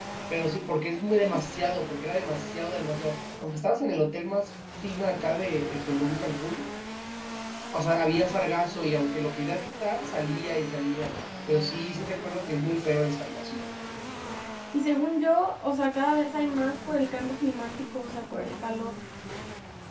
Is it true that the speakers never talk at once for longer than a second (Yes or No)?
Yes